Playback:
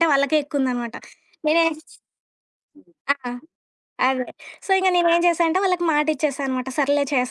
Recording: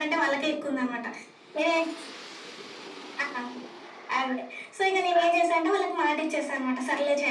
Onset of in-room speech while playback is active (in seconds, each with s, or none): none